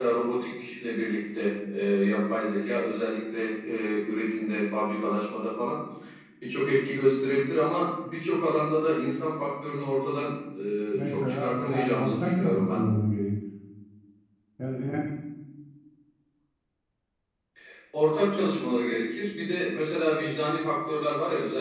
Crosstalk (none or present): present